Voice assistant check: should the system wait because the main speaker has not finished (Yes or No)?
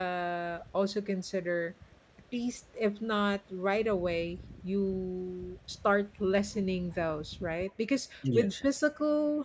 Yes